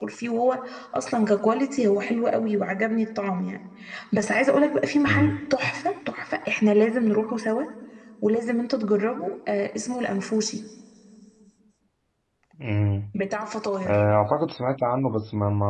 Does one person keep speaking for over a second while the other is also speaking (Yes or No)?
No